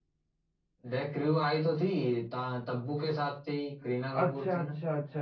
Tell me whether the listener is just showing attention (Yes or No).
No